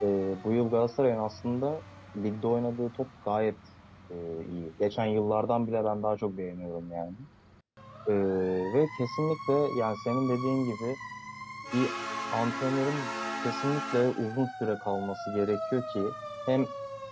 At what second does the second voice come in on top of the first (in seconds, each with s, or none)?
none